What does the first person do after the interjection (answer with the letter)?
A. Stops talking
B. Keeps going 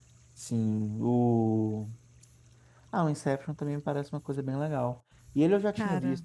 B